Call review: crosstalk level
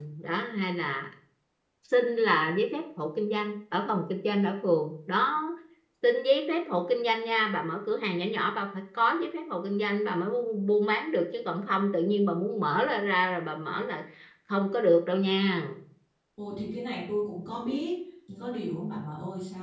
none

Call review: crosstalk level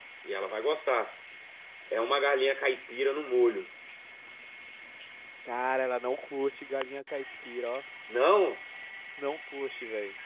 none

